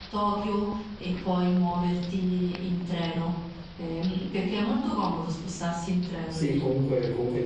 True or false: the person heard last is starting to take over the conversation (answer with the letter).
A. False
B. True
B